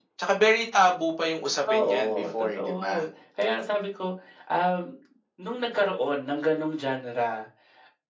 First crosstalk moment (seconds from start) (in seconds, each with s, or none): 1.6 s